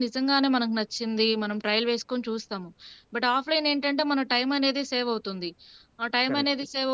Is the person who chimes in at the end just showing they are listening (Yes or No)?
Yes